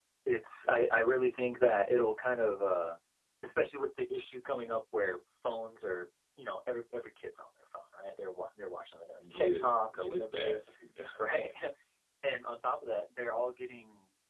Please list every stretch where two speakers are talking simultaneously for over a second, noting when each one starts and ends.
9.2-10.6

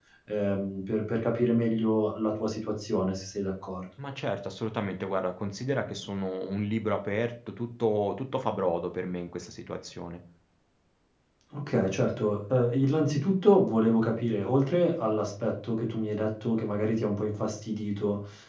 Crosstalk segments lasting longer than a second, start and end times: none

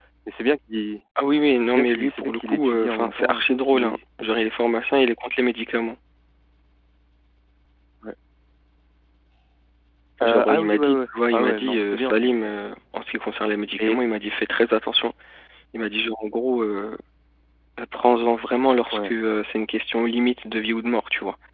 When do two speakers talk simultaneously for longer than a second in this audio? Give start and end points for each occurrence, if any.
1.8-4.0, 10.2-12.5

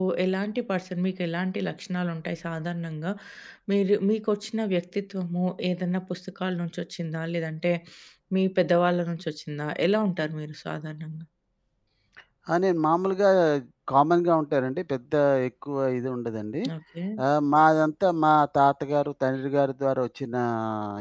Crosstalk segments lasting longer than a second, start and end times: none

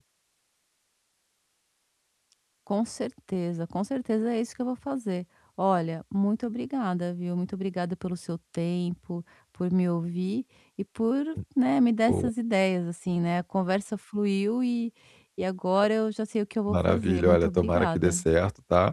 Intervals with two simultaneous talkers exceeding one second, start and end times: 16.7-18.2

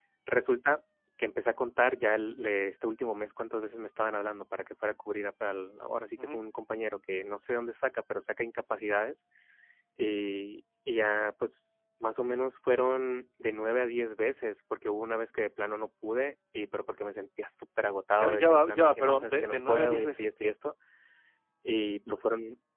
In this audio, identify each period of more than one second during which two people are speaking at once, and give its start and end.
18.2-20.5

